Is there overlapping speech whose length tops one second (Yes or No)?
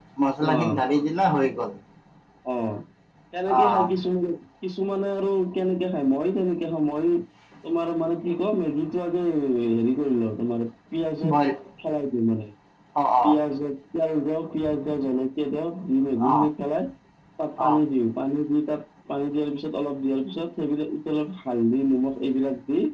No